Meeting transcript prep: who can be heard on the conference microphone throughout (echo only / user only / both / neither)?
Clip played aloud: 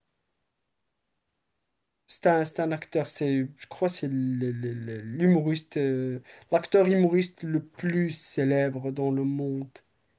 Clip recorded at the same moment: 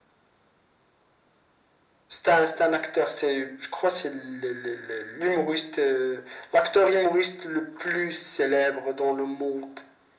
echo only